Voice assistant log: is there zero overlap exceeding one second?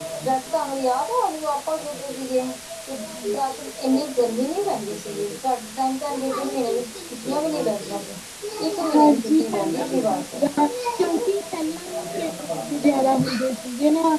No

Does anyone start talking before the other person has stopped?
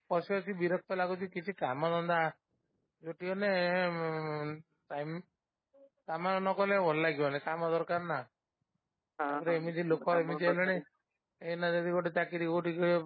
Yes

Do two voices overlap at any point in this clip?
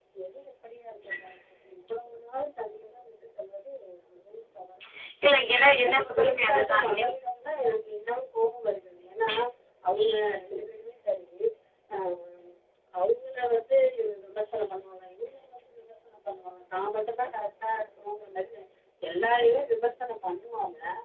Yes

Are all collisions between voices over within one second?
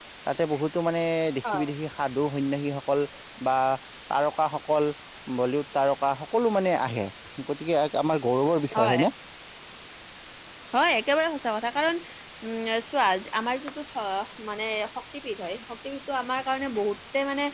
Yes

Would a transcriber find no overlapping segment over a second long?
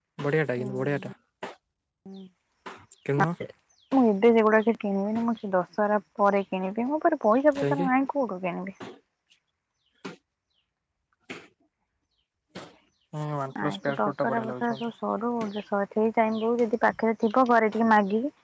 No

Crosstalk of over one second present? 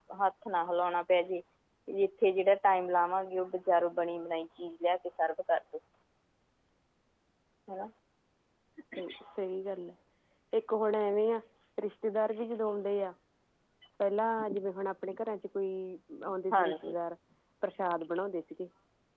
No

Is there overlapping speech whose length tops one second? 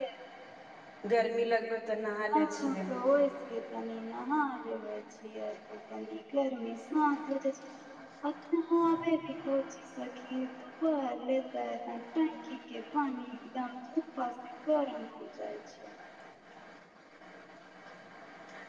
No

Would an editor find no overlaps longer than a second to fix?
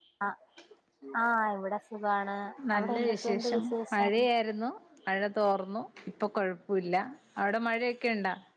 No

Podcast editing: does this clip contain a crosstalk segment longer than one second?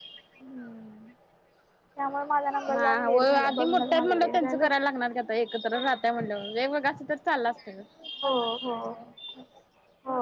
Yes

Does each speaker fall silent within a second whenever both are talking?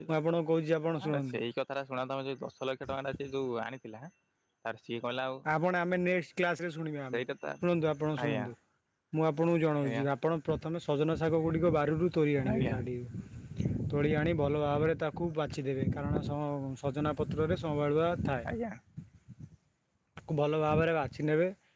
Yes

